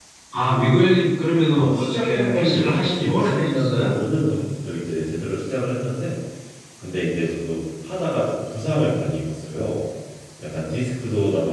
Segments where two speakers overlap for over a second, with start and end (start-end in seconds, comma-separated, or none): 1.5-4.0